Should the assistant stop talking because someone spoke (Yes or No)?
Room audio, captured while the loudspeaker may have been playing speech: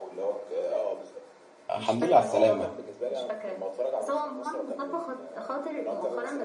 Yes